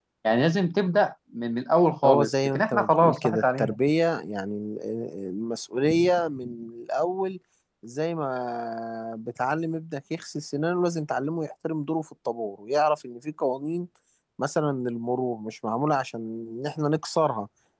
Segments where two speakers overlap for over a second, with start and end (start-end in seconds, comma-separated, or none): 2.0-3.8